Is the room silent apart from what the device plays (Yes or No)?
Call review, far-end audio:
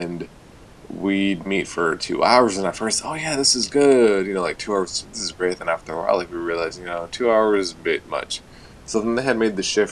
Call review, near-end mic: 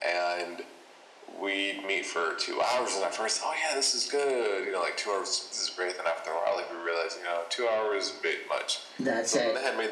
No